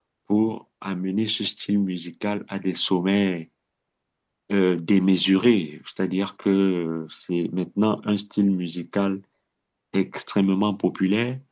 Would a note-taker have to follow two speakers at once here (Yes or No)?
No